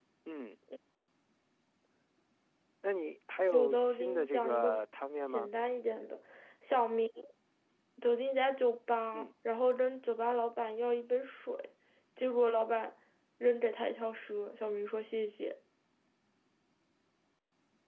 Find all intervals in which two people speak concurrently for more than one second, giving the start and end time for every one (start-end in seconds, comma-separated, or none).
3.5-4.8